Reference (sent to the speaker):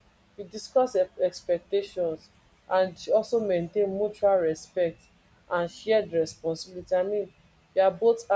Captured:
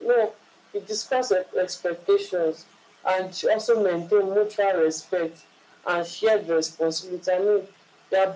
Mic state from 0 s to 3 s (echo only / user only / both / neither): echo only